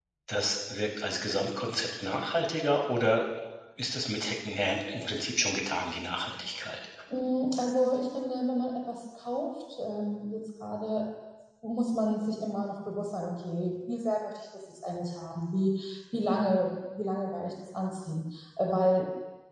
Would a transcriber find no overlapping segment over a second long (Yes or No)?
Yes